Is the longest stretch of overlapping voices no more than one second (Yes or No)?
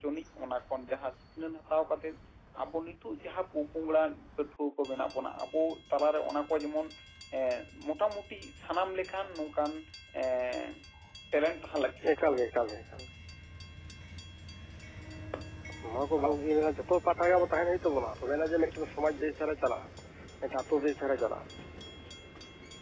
Yes